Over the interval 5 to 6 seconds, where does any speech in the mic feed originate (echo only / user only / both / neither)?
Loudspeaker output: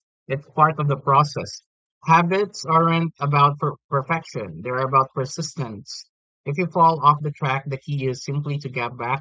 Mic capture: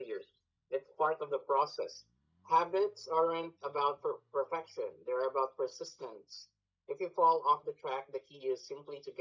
echo only